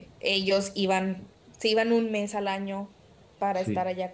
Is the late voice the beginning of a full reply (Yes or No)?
No